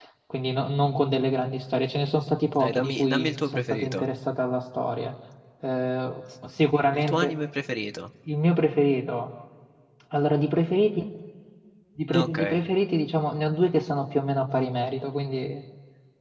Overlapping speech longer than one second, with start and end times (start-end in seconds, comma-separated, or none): 2.6-4.1